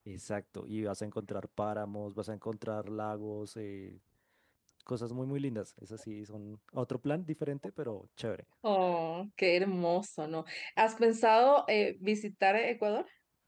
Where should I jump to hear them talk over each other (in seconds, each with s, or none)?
none